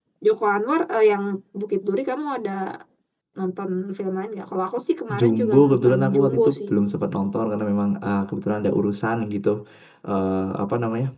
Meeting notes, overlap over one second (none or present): present